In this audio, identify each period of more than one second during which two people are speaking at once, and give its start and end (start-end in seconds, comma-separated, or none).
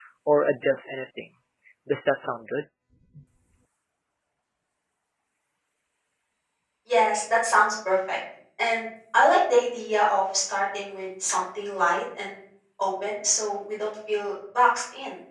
none